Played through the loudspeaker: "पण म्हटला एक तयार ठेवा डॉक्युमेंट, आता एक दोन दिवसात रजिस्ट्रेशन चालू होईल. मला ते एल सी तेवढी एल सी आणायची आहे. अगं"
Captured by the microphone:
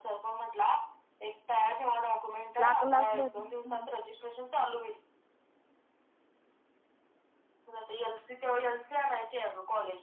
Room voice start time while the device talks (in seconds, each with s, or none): 2.6 s